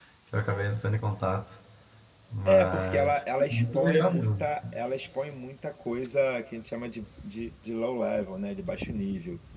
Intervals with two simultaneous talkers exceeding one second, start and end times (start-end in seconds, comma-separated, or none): 2.4-4.5